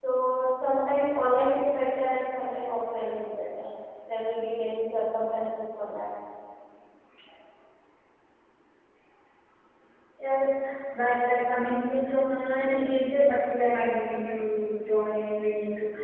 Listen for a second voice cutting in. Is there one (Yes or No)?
No